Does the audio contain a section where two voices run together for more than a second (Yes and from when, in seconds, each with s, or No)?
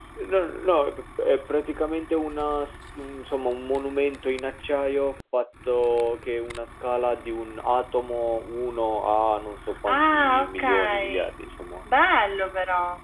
Yes, from 9.9 s